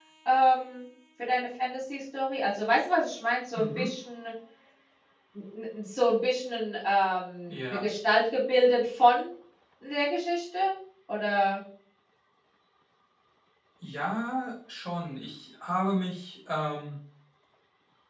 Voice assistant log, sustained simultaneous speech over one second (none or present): none